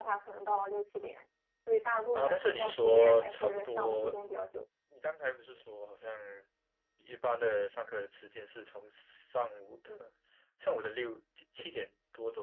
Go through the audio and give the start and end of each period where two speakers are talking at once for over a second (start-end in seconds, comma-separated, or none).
2.1-4.1